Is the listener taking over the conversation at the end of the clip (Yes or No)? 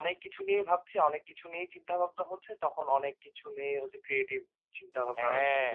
Yes